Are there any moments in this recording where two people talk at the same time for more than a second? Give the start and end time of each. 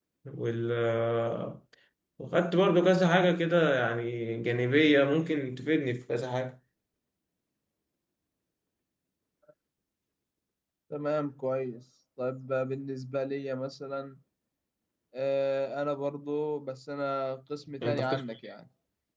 none

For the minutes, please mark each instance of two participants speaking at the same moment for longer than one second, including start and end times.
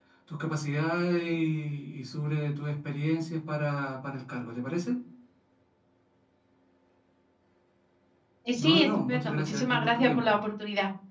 8.6-10.4

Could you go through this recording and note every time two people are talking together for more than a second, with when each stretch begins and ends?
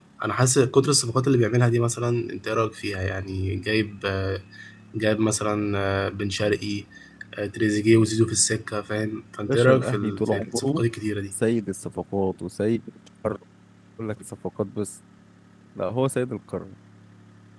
9.5-10.8

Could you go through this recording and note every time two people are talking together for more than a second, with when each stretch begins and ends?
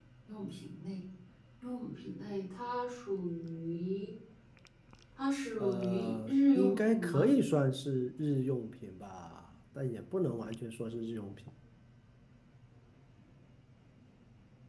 5.6-7.3

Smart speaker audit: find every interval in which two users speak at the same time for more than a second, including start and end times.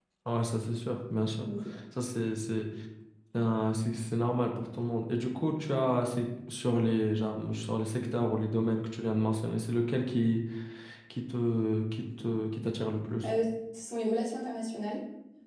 none

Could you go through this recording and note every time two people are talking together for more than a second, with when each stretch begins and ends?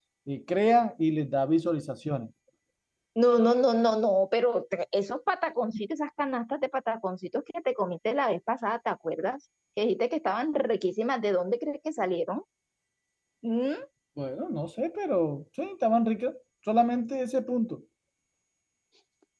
none

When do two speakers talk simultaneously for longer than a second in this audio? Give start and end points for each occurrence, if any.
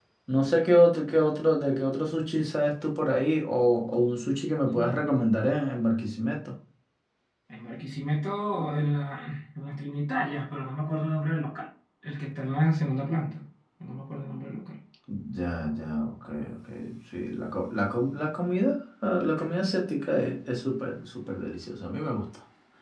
none

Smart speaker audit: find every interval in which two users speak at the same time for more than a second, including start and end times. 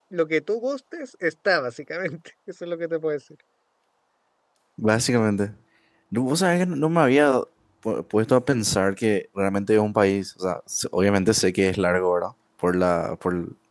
none

